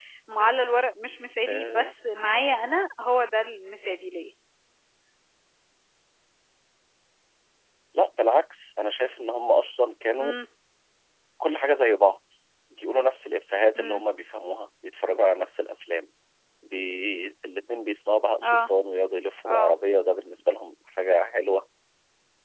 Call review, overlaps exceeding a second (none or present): none